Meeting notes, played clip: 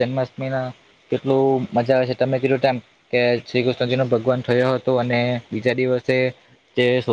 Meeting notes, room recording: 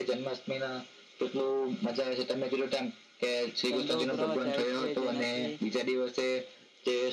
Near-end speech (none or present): present